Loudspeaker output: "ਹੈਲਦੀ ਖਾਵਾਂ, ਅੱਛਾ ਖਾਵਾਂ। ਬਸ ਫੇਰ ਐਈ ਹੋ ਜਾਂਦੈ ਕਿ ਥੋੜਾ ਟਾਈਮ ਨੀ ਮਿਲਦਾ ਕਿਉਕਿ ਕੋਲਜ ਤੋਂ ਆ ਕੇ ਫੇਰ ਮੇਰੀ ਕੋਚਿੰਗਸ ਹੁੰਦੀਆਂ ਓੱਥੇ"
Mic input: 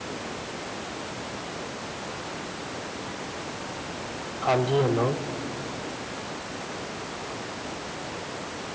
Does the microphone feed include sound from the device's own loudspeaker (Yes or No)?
No